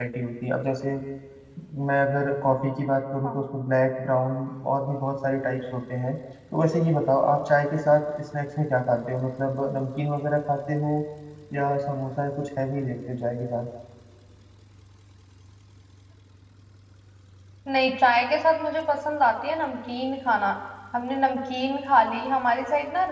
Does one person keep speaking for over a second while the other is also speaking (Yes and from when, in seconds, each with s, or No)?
No